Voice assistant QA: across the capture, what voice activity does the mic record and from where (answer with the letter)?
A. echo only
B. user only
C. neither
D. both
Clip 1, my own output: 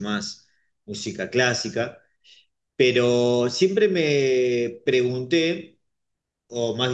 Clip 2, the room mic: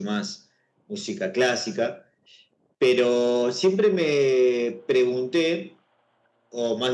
A